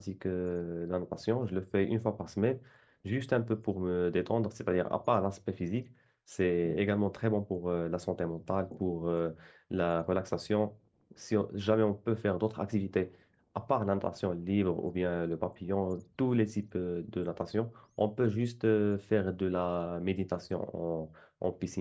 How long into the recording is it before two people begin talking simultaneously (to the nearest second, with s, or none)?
none